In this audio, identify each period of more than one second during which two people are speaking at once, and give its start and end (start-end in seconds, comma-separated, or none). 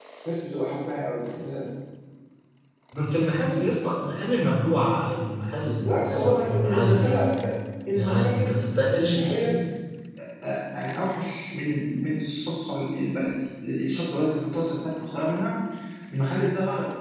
5.8-7.2, 7.9-9.5